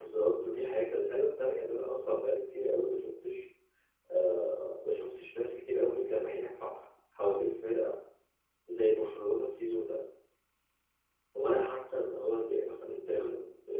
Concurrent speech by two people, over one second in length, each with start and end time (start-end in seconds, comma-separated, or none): none